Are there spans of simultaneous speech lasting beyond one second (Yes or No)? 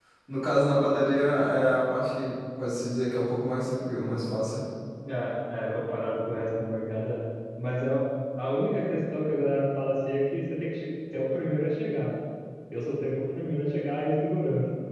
No